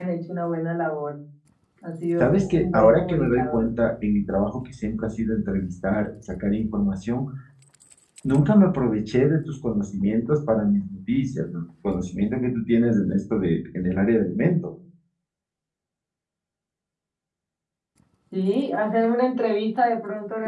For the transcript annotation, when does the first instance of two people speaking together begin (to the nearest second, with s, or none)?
2 s